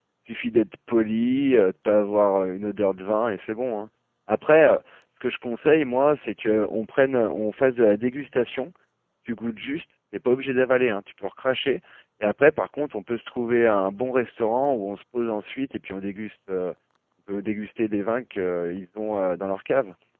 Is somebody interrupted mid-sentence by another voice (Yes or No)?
No